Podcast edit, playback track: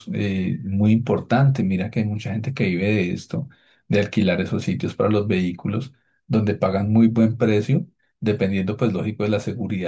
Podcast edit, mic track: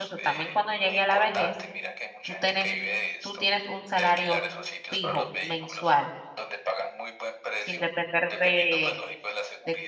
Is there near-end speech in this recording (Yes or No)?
Yes